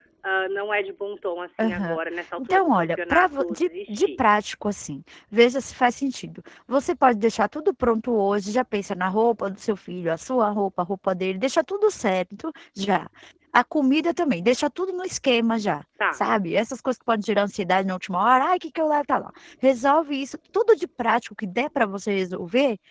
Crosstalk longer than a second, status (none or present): present